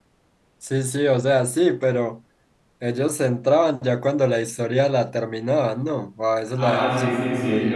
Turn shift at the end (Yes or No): Yes